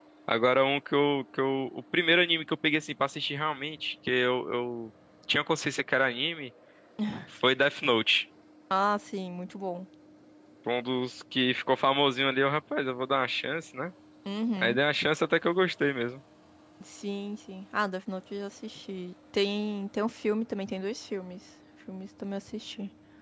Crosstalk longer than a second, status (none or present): none